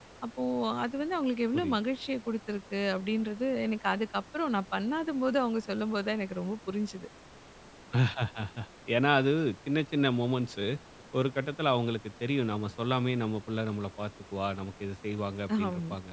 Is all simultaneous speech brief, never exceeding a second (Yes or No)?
Yes